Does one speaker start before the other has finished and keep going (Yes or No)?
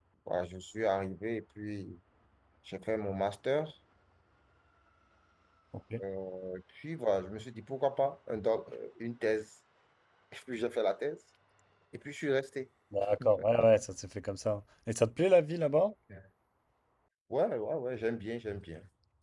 No